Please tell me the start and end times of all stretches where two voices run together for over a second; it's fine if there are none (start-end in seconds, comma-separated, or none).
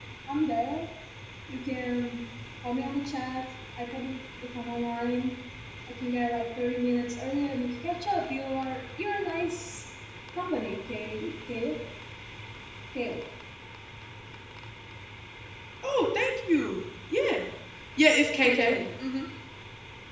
none